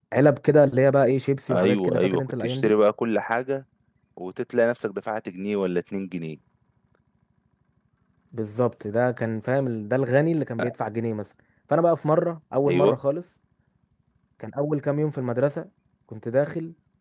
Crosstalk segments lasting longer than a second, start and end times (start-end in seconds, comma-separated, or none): 1.5-2.7